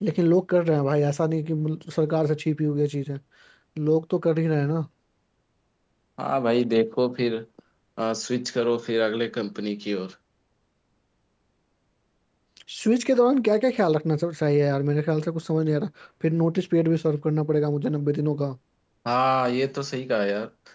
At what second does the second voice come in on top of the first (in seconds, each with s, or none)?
none